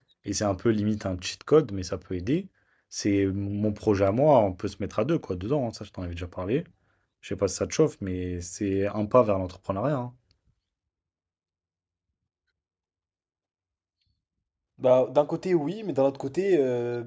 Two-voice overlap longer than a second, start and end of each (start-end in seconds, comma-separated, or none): none